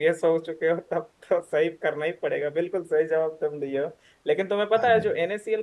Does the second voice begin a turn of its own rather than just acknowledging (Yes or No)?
No